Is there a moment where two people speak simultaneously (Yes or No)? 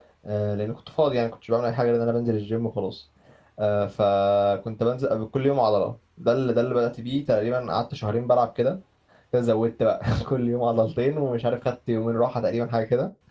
No